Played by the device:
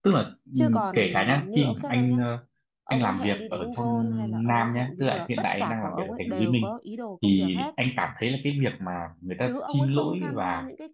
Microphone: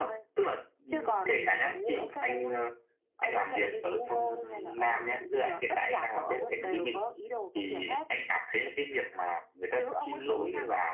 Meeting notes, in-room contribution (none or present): none